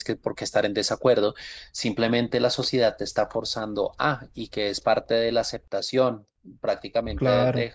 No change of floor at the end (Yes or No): Yes